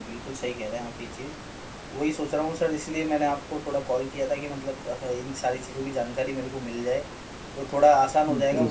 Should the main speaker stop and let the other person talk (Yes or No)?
No